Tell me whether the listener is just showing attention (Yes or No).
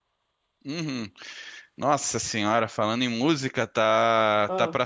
Yes